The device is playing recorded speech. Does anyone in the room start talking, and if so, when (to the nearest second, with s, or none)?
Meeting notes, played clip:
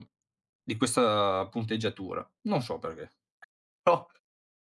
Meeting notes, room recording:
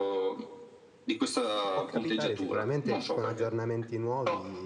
2 s